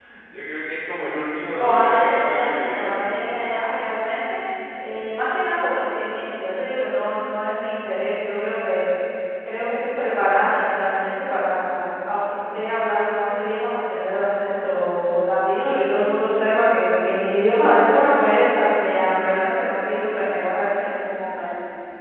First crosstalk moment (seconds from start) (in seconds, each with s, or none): 1.6 s